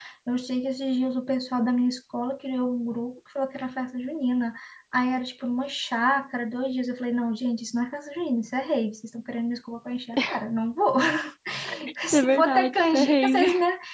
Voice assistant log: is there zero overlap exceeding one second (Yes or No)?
No